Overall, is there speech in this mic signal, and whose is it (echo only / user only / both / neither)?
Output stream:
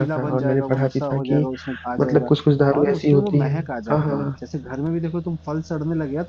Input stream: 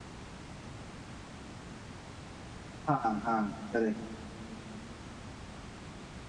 user only